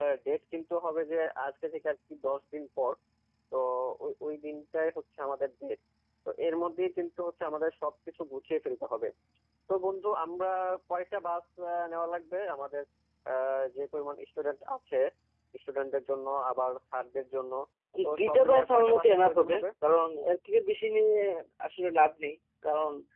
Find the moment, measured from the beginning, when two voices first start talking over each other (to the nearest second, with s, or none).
18 s